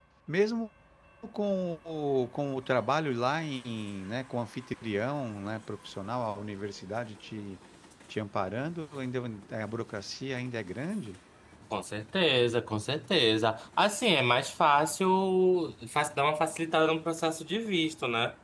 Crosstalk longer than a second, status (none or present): none